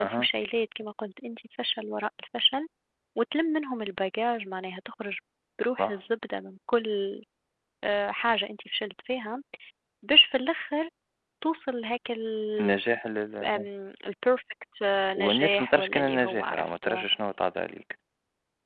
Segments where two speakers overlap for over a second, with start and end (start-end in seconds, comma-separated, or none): 15.2-16.9